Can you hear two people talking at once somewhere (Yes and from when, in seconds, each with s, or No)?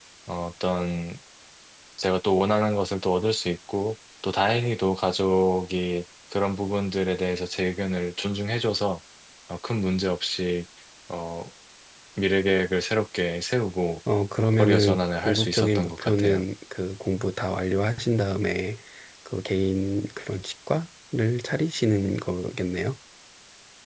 Yes, from 14.6 s